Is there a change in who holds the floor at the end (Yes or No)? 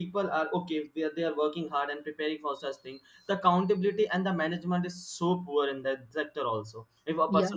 No